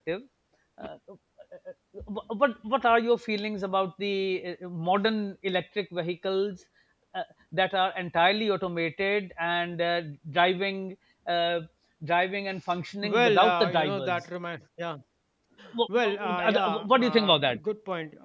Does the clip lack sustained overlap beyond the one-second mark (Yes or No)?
No